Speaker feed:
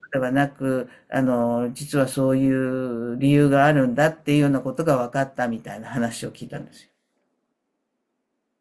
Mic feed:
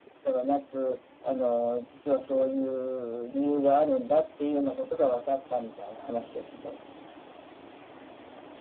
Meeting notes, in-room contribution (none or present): none